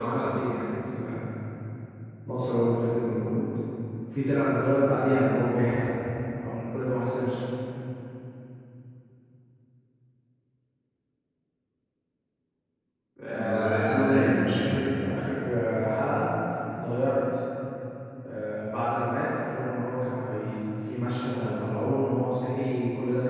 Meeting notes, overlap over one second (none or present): present